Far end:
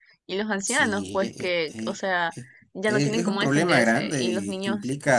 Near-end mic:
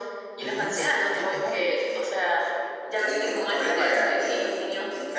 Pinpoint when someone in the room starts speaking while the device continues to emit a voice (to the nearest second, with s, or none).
0 s